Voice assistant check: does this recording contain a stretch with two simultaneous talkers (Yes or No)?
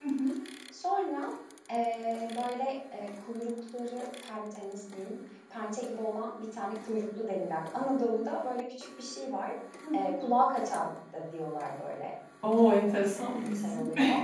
Yes